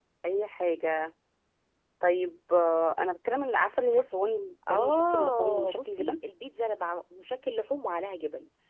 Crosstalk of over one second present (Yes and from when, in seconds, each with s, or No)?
Yes, from 4.7 s